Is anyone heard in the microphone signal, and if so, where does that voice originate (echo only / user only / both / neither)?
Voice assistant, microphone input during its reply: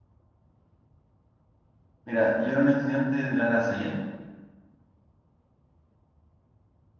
user only